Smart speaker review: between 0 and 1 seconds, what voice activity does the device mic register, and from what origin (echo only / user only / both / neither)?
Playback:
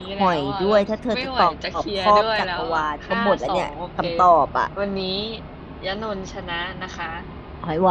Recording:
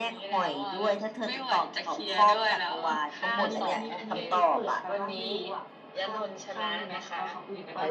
echo only